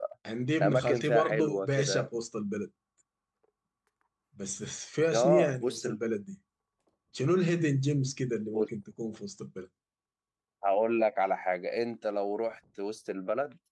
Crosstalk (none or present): present